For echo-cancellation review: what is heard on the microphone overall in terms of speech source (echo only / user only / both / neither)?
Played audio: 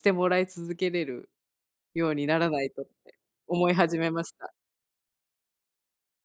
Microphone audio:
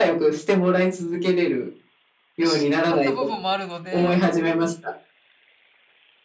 both